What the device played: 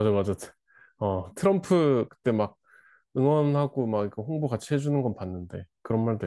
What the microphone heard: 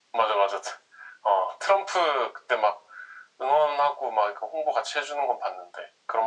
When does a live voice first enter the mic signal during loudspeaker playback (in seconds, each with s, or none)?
none